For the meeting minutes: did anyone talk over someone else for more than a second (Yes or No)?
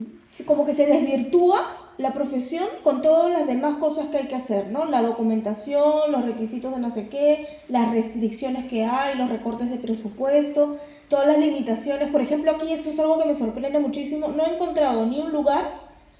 No